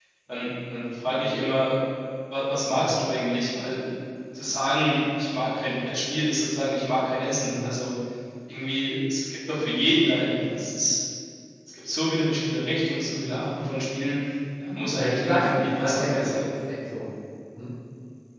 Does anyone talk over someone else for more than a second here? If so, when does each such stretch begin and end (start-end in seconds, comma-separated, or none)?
14.9-16.3